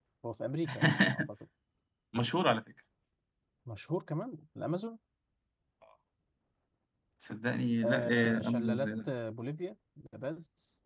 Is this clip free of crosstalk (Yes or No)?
No